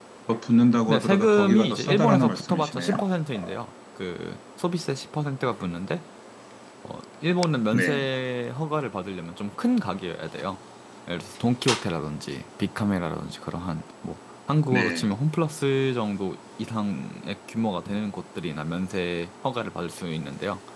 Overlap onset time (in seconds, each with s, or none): 0.9 s